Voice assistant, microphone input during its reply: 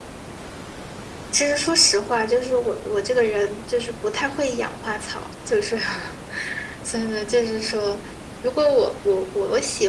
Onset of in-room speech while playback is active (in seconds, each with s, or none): none